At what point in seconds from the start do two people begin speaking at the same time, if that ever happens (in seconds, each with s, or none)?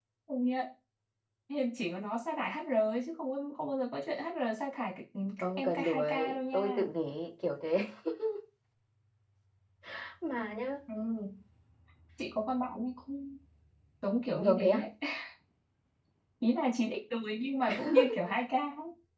5.4 s